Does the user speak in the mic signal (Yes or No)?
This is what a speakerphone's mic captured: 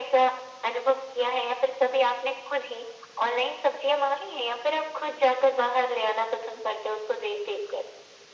No